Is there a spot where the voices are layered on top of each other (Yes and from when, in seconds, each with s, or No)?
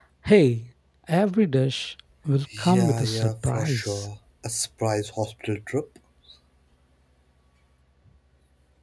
Yes, from 2.5 s